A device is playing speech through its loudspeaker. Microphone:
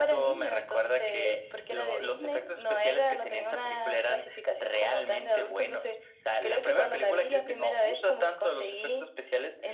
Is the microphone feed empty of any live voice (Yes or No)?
Yes